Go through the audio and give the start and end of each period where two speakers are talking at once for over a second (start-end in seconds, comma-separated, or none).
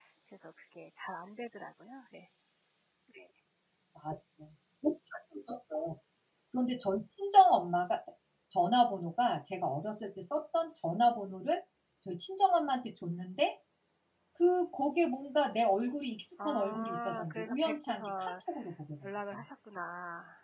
16.4-18.3